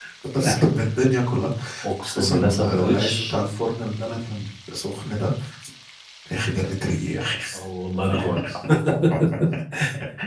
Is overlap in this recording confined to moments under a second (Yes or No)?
No